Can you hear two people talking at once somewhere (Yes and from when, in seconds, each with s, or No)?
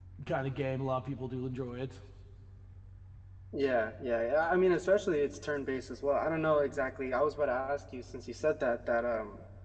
No